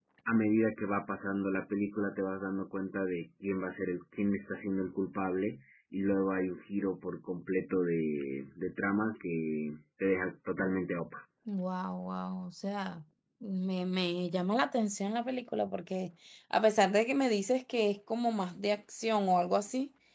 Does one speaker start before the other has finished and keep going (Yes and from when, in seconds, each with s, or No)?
No